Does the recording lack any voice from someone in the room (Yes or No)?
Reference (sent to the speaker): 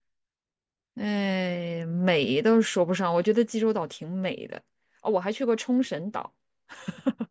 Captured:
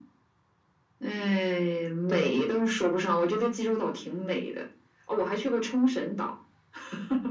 No